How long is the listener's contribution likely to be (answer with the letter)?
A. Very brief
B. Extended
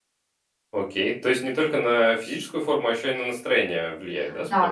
B